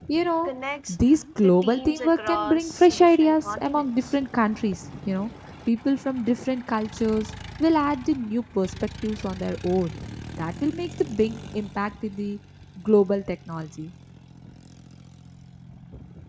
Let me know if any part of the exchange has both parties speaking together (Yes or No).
Yes